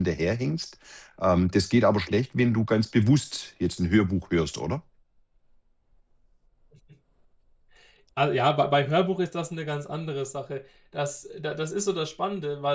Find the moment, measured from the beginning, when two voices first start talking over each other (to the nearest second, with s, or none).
none